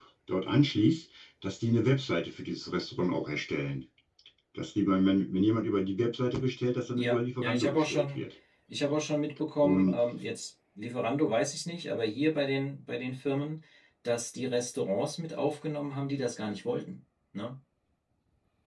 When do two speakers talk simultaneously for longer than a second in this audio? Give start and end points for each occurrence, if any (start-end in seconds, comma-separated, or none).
7.0-8.2